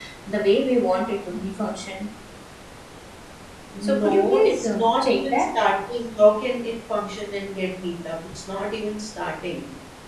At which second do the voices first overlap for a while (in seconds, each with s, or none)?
3.8 s